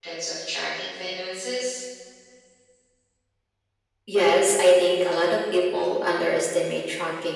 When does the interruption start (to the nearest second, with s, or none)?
none